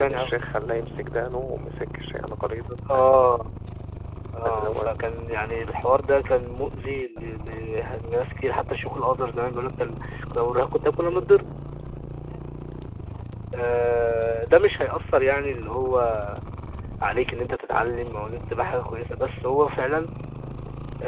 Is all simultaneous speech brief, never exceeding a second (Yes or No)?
Yes